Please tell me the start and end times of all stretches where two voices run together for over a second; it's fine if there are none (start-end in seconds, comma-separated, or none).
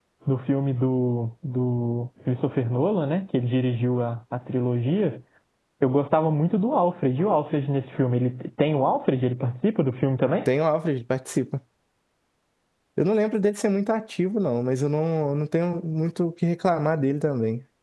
none